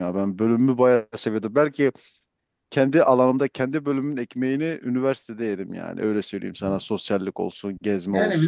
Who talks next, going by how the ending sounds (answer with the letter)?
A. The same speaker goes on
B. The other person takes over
B